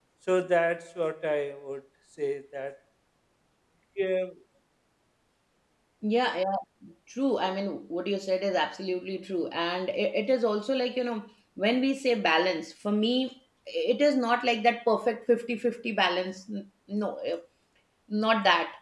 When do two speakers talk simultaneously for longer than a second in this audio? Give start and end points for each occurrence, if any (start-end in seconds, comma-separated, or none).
none